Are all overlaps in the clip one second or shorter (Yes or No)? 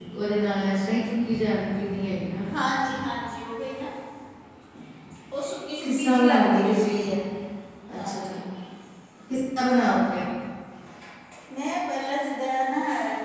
No